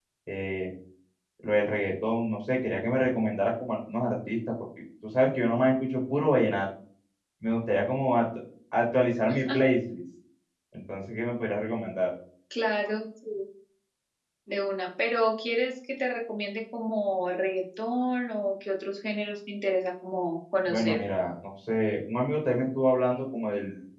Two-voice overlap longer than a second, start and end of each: none

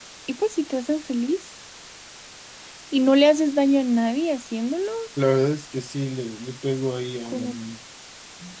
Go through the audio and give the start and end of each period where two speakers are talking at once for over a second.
none

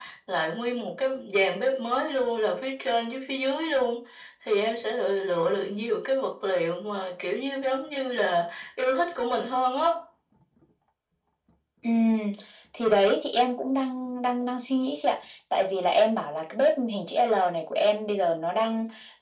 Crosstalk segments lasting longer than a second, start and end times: none

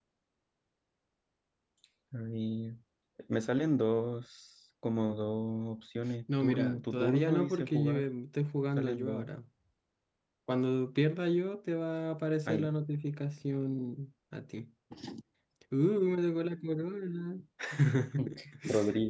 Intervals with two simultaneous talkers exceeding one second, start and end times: 6.4-8.0

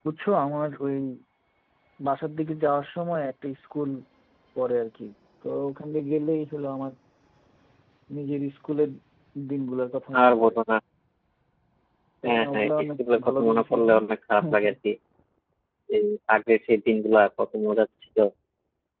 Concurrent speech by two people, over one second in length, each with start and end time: 12.2-13.9

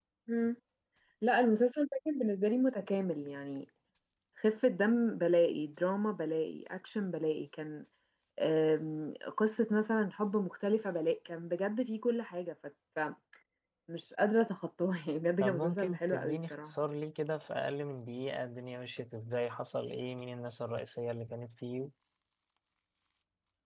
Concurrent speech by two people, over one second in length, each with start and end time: 15.4-16.7

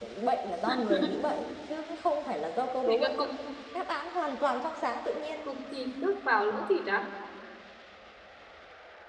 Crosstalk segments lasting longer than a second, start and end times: none

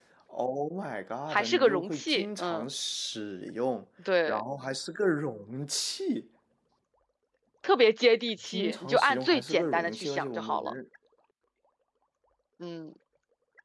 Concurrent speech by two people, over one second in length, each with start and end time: 1.3-2.6, 8.5-10.7

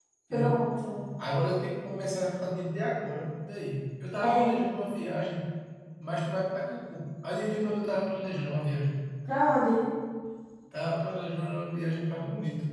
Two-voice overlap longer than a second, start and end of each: none

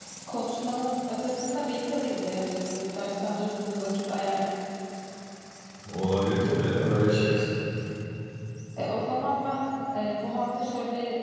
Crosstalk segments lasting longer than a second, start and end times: none

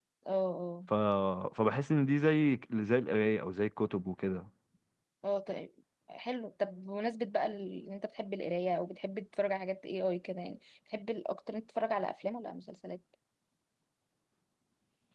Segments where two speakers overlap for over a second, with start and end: none

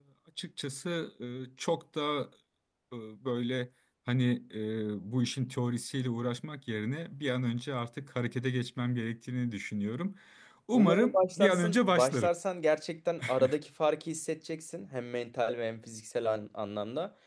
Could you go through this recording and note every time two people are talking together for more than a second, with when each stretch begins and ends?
10.7-12.3

